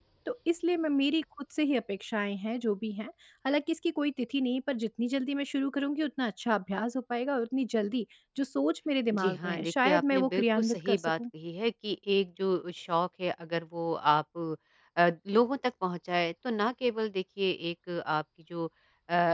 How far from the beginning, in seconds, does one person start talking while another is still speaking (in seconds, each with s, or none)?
9.1 s